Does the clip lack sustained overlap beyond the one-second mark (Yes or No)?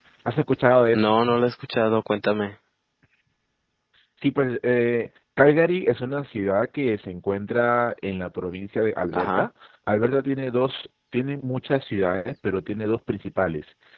Yes